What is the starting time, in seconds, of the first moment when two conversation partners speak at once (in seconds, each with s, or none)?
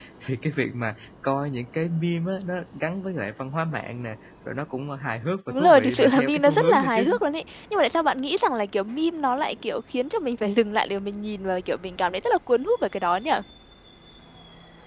5.5 s